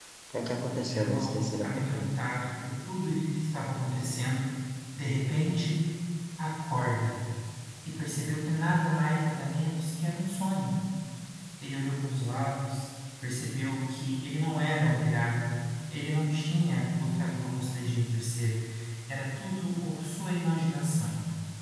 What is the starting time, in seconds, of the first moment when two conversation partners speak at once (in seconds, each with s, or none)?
0.9 s